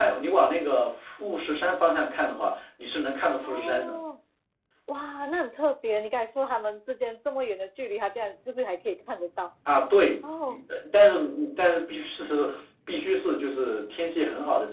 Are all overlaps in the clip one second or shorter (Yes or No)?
Yes